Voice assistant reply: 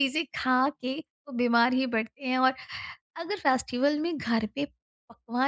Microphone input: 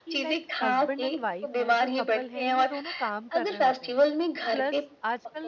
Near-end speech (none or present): present